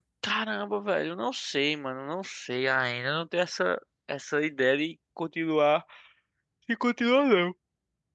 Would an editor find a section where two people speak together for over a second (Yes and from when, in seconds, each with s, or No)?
No